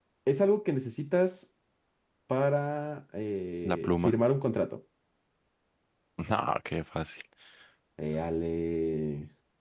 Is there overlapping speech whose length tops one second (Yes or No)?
No